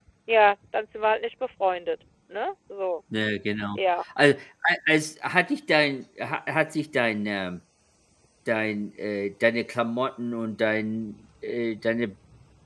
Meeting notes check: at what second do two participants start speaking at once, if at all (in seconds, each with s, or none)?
none